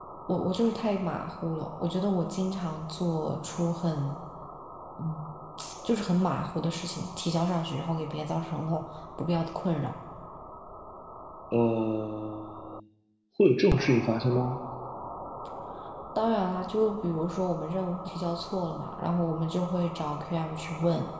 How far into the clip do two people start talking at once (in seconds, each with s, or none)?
none